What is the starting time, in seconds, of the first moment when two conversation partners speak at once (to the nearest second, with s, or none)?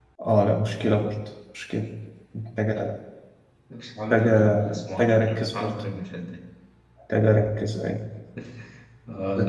4 s